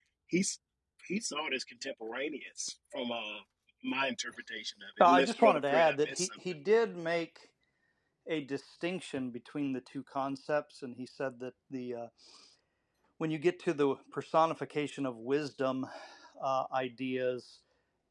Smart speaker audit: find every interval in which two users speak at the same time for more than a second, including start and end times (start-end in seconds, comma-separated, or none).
5.0-6.3